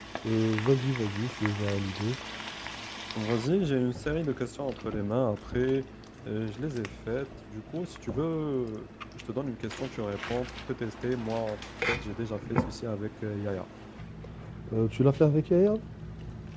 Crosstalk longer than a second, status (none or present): none